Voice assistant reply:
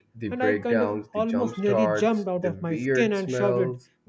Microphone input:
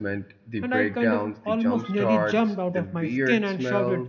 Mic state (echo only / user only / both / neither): echo only